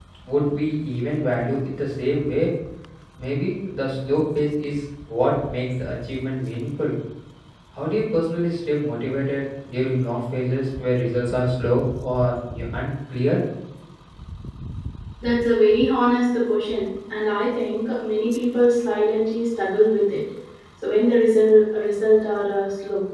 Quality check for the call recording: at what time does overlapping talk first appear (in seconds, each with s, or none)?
none